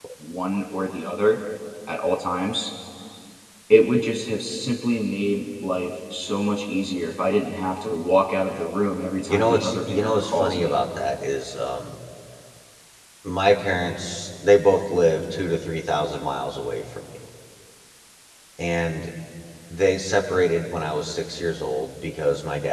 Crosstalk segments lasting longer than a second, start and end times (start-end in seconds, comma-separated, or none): 9.3-10.7